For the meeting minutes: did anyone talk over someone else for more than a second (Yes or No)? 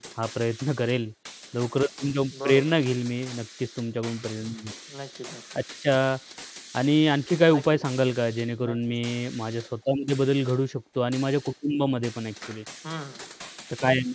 No